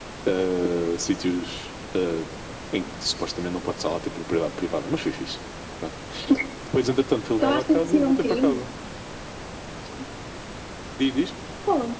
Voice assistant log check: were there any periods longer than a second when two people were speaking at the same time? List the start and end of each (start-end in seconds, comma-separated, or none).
7.4-8.7